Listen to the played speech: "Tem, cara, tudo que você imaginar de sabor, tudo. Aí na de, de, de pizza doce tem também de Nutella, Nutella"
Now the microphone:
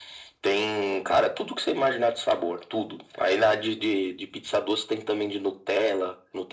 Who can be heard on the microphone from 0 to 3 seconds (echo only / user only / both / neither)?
echo only